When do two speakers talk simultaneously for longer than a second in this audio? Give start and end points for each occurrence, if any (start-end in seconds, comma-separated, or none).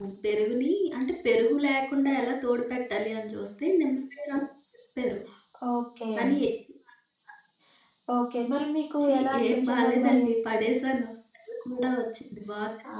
9.0-10.2